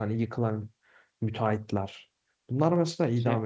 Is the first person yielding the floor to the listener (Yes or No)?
No